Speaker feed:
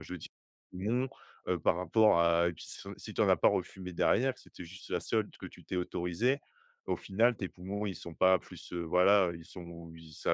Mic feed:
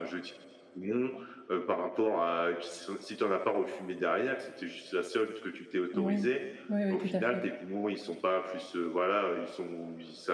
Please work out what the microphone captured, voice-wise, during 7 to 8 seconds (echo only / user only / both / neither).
both